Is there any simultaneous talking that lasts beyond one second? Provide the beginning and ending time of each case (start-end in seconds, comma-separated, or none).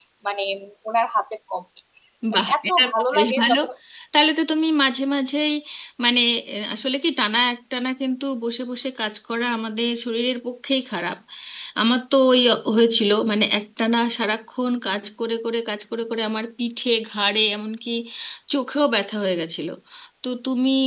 2.3-3.5